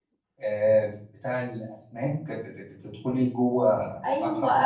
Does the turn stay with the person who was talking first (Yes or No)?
No